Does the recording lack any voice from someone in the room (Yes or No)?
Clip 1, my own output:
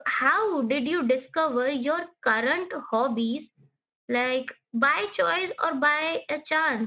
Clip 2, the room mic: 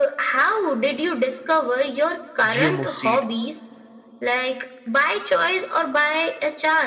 No